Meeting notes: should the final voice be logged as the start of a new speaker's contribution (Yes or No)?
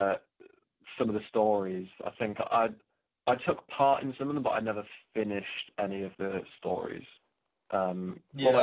Yes